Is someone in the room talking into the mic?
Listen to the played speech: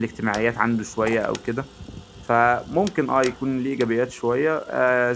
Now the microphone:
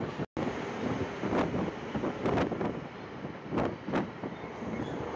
No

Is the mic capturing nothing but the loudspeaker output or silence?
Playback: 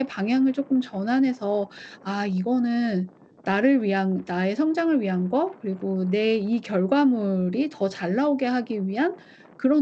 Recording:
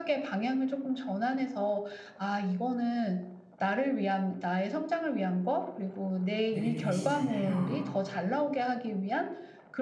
No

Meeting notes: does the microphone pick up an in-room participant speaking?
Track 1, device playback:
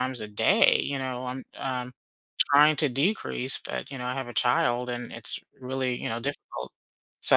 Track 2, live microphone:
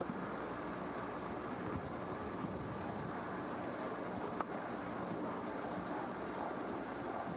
No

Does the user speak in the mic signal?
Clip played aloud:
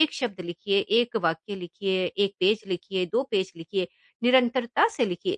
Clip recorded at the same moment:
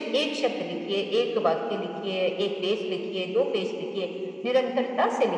No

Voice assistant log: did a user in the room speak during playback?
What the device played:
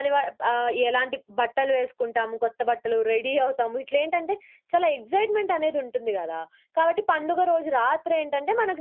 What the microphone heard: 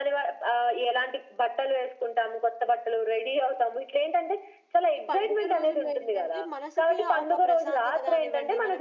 Yes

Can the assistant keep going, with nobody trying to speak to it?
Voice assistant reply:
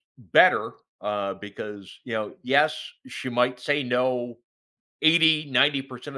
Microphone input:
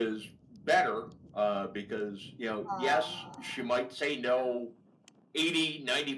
No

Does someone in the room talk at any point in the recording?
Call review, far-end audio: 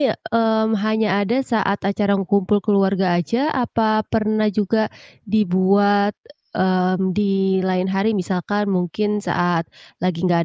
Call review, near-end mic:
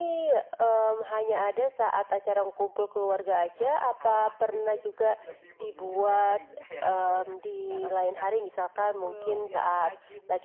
Yes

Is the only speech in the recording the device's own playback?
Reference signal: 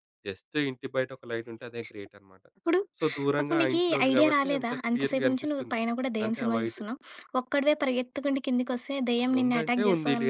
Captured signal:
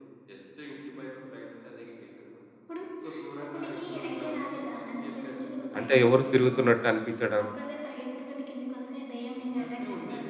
No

